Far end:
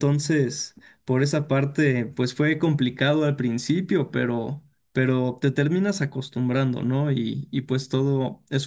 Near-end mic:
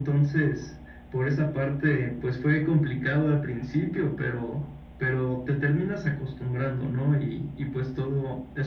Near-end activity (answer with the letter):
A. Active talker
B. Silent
B